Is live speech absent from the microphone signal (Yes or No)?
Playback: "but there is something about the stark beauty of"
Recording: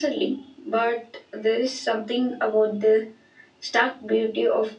Yes